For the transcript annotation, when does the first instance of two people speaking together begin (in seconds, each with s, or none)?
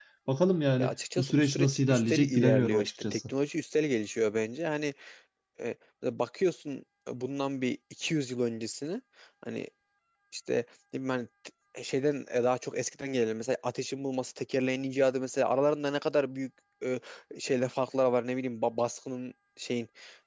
0.8 s